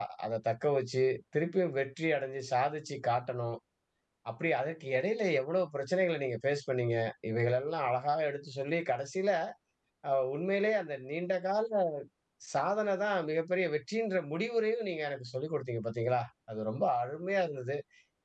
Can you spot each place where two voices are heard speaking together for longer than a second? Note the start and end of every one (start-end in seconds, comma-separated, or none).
none